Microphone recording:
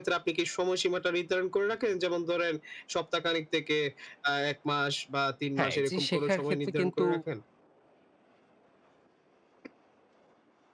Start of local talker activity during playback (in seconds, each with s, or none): 5.6 s